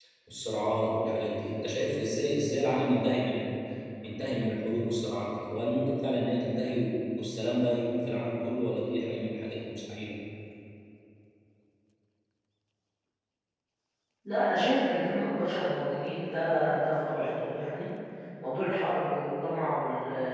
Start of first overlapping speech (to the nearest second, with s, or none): none